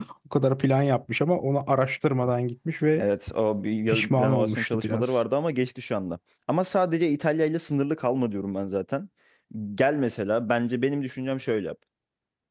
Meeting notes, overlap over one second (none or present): present